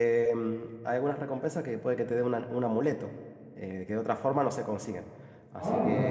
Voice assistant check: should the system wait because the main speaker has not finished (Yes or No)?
No